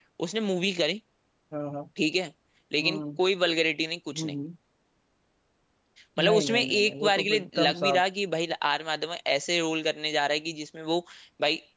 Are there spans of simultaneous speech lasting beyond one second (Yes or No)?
Yes